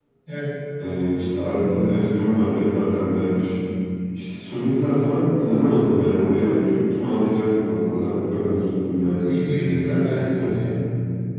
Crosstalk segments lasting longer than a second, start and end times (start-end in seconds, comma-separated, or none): 9.2-10.5